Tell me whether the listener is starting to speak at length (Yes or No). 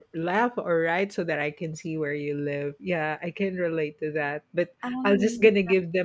No